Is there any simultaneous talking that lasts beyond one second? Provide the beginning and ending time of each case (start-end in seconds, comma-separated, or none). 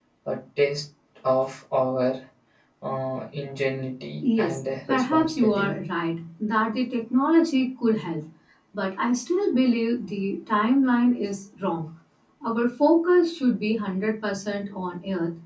4.2-5.7